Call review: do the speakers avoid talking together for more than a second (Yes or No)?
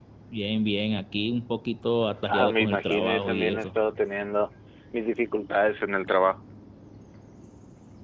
No